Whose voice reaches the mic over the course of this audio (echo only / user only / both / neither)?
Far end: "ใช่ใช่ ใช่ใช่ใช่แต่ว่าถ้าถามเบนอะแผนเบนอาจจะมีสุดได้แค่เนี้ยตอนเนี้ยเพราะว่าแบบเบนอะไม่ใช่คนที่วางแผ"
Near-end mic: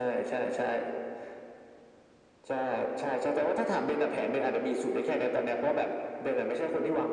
echo only